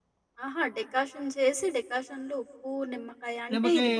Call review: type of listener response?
listening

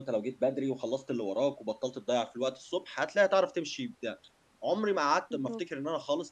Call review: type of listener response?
listening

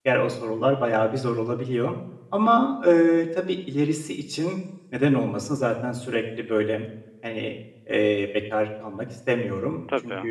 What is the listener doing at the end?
listening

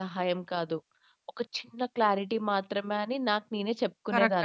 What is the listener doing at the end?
taking over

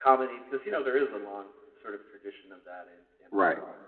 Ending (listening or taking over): taking over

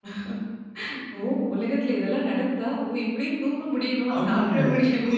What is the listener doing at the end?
taking over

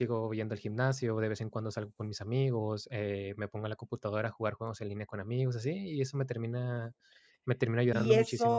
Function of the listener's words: taking over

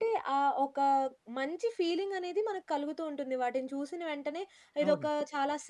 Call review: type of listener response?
listening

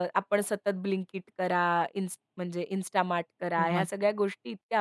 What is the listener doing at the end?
listening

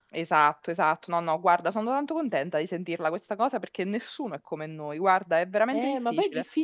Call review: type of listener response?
taking over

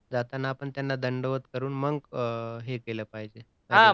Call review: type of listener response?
taking over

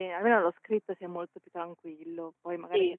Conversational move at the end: listening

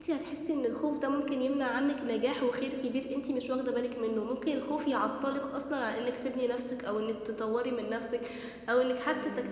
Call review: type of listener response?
listening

